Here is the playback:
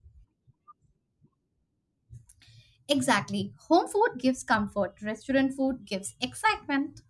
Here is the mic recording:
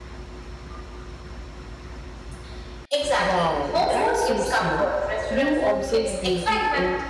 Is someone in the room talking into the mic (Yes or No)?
Yes